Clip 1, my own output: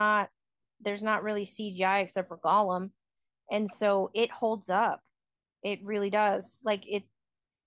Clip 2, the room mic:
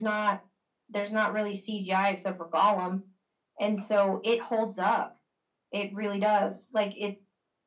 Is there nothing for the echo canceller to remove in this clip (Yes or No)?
No